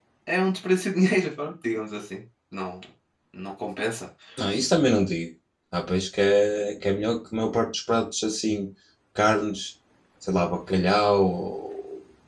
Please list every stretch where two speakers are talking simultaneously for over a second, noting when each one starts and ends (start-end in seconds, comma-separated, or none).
none